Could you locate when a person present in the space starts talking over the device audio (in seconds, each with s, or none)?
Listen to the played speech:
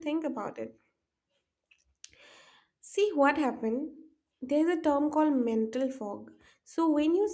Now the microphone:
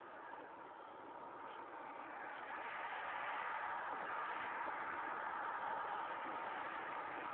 none